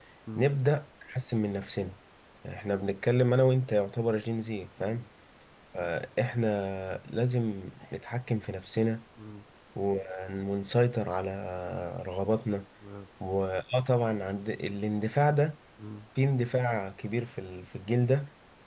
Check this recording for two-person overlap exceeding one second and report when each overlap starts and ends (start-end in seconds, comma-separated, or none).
none